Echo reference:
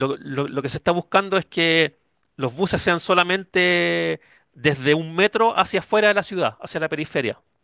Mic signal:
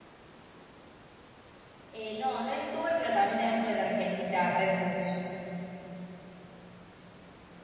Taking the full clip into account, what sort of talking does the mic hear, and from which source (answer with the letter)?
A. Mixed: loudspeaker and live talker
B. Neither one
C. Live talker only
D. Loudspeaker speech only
C